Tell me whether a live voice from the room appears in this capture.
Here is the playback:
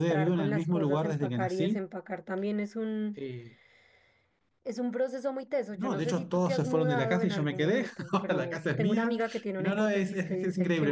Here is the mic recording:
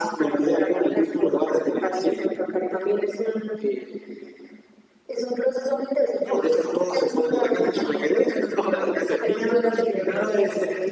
Yes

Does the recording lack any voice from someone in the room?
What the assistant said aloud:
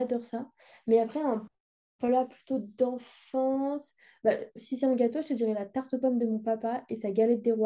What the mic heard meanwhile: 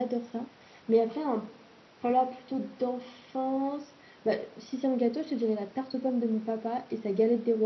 Yes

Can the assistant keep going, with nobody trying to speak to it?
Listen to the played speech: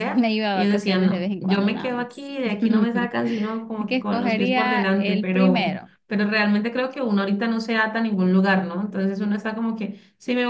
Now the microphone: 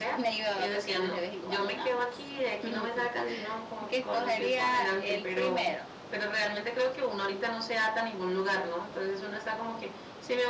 Yes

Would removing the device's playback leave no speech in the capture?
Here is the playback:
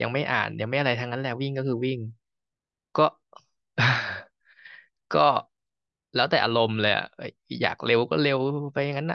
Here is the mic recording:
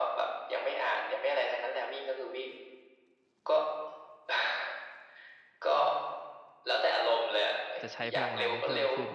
No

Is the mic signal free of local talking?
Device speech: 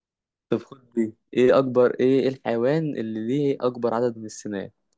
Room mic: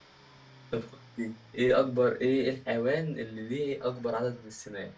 Yes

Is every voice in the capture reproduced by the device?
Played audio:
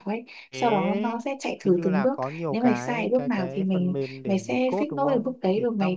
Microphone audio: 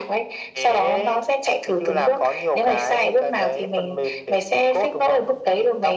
Yes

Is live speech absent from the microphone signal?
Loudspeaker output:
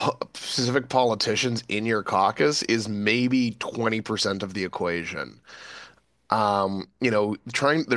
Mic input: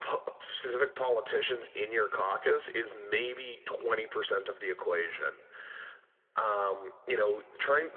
Yes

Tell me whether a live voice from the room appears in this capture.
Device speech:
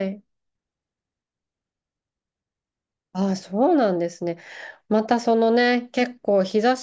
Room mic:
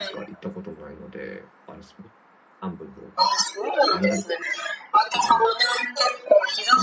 Yes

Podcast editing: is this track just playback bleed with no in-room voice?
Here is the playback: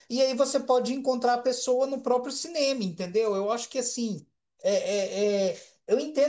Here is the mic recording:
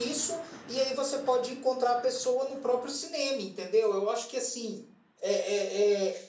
Yes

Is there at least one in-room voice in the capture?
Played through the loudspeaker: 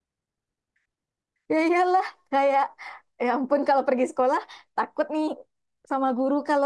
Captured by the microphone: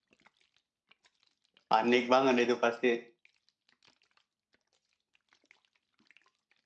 Yes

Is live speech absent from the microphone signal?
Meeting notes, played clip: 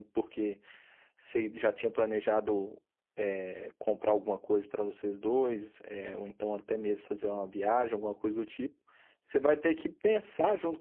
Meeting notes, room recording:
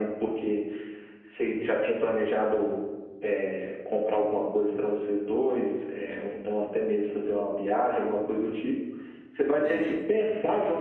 No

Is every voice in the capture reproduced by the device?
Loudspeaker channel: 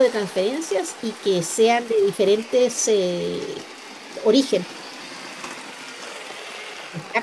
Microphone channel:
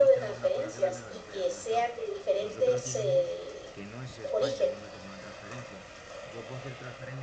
No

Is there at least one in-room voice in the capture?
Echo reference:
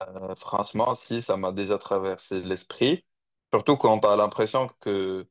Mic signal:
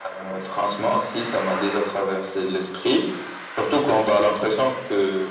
No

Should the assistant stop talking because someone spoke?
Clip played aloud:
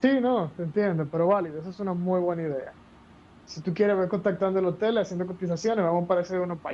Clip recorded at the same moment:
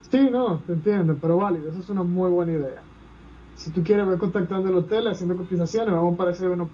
No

